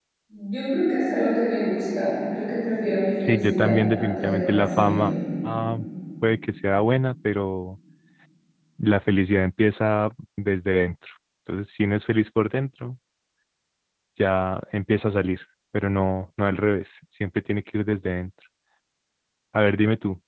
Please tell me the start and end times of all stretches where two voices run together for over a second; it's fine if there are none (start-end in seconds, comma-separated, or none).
3.2-5.1